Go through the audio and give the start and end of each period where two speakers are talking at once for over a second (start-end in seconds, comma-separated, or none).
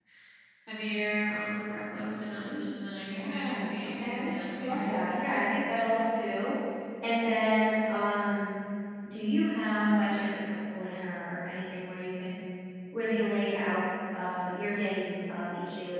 3.1-5.4